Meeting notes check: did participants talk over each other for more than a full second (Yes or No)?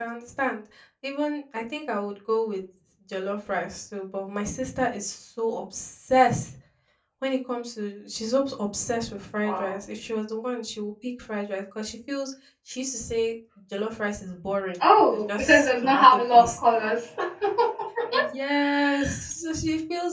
Yes